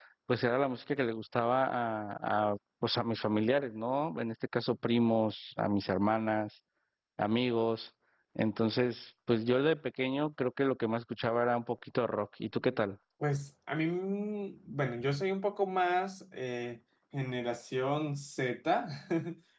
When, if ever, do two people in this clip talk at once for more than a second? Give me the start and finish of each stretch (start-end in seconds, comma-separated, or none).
none